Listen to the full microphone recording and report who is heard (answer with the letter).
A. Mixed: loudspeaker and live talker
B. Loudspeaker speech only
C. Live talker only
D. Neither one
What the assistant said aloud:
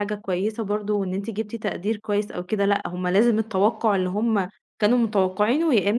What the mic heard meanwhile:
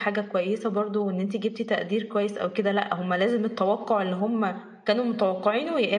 B